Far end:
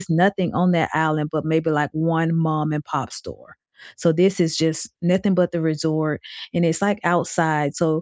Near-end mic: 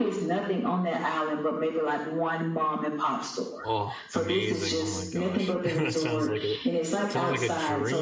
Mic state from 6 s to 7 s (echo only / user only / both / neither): both